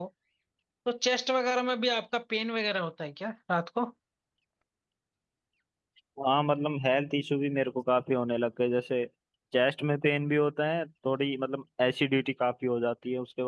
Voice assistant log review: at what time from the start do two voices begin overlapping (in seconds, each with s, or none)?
none